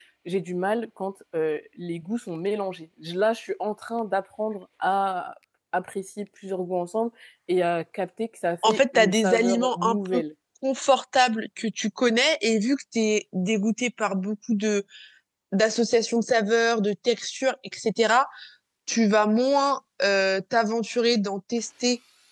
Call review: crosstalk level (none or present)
present